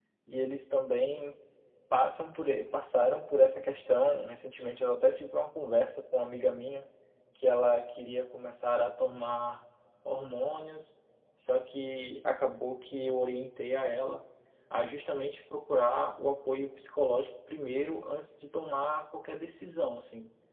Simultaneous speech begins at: none

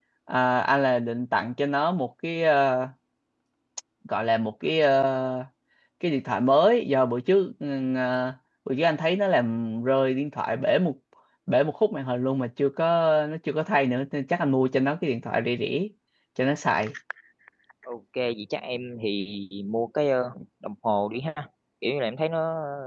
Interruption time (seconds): none

